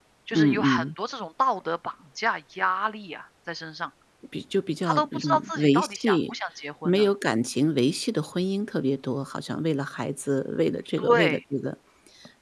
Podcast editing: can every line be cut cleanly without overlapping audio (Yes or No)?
No